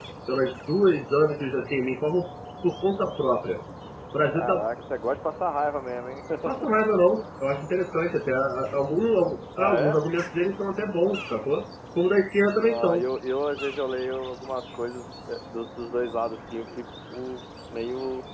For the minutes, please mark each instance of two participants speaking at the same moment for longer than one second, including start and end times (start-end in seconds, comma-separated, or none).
none